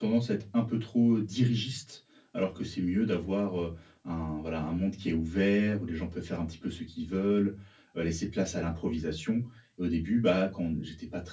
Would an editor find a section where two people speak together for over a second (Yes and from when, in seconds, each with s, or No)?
No